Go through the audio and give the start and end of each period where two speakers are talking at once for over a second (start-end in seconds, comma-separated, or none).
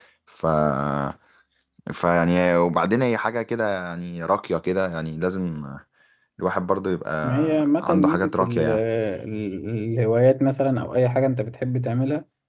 7.2-8.8